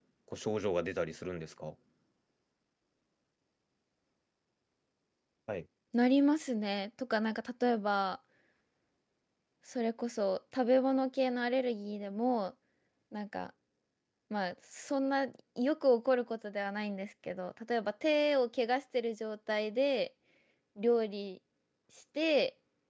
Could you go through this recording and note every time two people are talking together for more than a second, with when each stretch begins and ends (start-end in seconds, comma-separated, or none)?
none